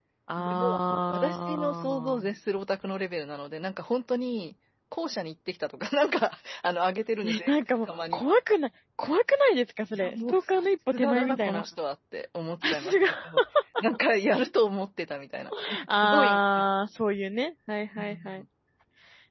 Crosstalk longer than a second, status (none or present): present